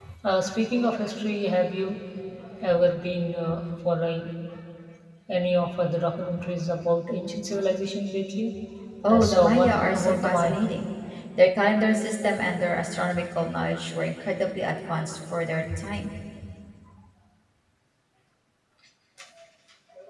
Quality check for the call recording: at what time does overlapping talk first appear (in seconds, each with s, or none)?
9.1 s